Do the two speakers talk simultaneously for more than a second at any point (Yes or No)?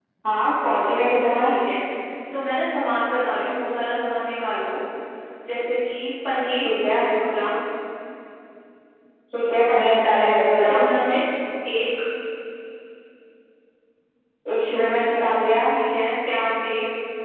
No